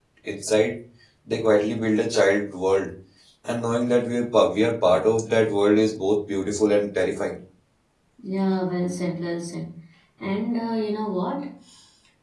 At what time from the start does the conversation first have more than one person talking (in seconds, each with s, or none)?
none